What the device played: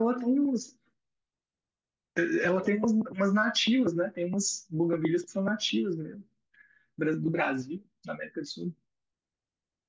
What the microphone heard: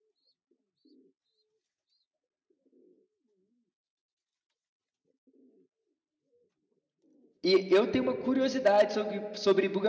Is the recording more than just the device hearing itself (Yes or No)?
Yes